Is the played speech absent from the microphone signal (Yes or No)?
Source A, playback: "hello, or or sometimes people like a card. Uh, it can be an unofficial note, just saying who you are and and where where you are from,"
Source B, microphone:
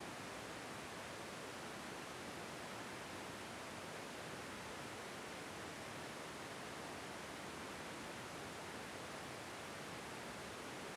Yes